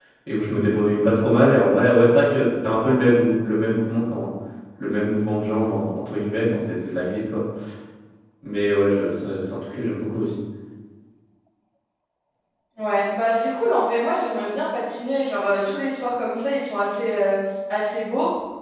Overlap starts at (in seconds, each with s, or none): none